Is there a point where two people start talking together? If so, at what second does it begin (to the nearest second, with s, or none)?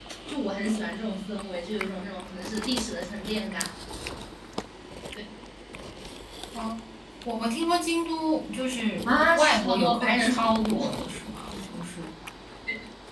9 s